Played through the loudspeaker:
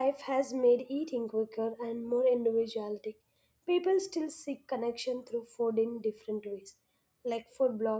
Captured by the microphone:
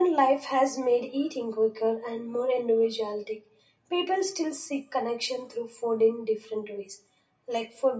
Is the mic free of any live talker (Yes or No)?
Yes